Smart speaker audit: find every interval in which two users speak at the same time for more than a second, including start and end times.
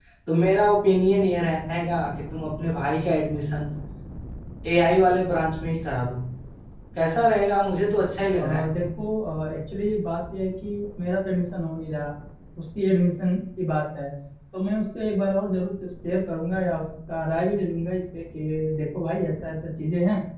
none

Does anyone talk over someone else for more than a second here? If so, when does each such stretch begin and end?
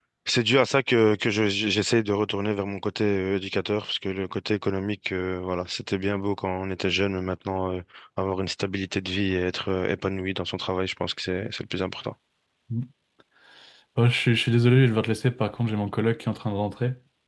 none

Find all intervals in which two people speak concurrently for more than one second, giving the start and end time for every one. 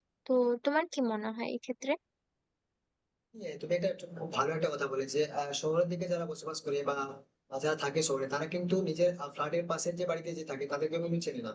none

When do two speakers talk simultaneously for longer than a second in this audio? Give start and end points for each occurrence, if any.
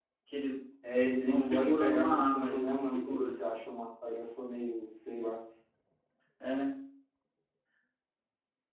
1.2-3.4

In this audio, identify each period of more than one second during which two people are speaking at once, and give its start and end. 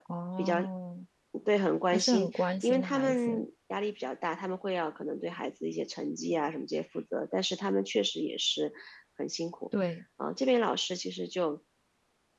1.9-3.5

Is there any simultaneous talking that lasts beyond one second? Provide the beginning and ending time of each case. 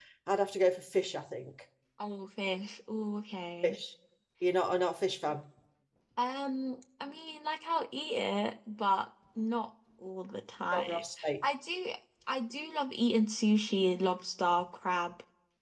none

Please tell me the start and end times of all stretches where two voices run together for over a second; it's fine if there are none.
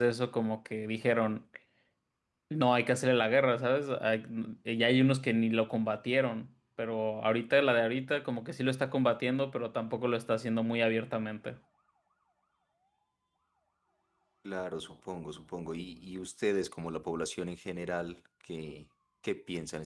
none

